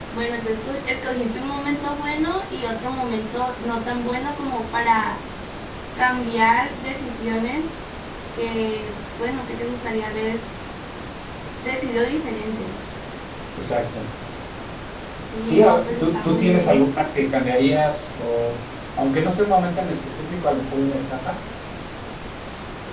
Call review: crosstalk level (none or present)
present